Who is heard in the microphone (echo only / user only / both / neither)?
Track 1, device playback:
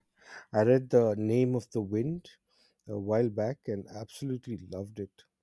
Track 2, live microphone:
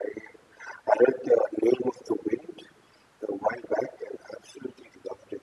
echo only